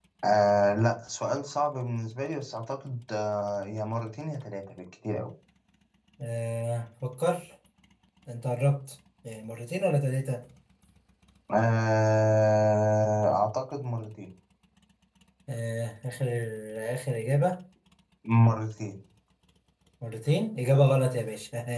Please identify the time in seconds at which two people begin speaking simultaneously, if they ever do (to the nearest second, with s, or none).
none